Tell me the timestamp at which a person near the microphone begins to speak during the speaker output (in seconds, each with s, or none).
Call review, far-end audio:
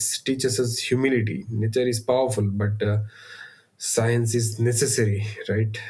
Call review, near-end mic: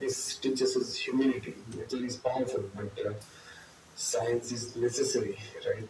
none